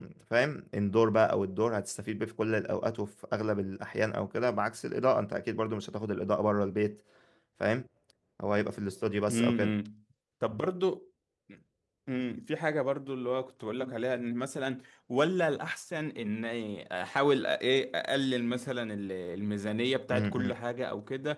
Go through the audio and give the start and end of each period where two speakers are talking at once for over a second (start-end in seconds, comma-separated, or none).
none